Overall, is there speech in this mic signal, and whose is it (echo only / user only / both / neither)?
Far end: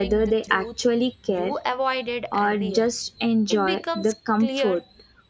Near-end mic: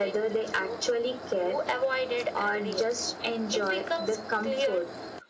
echo only